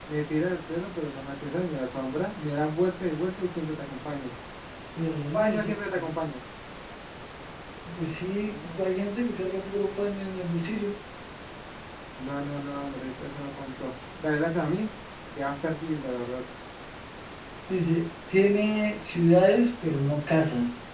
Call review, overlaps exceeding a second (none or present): none